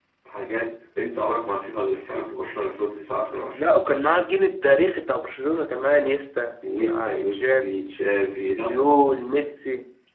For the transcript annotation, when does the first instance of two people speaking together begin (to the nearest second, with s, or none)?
7 s